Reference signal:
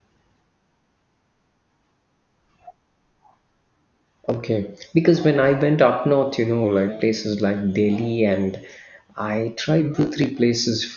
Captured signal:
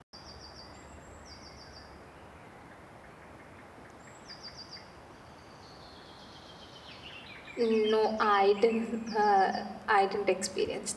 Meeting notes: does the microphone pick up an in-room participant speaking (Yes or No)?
Yes